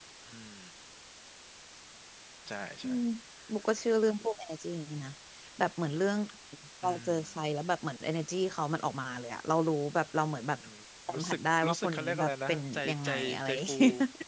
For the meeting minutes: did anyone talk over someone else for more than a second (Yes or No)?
Yes